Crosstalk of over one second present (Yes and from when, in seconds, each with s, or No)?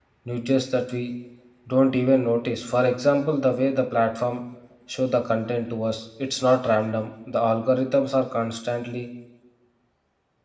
No